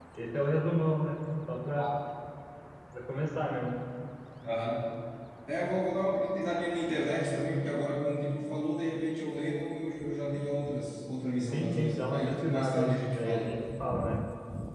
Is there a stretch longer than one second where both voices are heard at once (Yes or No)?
Yes